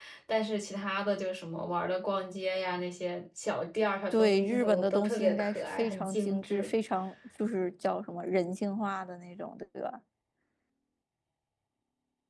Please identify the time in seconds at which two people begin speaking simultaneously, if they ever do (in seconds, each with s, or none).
4.1 s